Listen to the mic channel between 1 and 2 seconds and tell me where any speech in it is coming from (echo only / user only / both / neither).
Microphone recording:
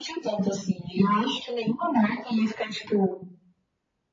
echo only